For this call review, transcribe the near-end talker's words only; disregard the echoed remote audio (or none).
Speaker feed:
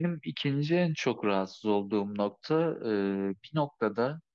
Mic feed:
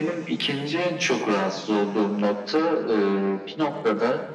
none